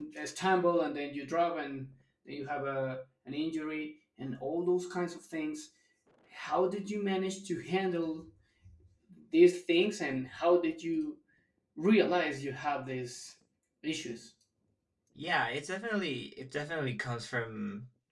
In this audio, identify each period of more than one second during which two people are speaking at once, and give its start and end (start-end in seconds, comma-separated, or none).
none